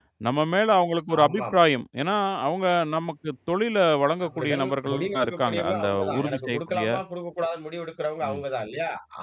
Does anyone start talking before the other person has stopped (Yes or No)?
Yes